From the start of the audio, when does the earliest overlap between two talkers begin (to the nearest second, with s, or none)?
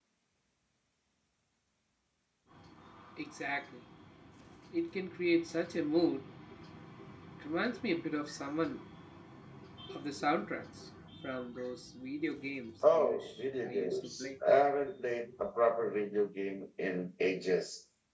13 s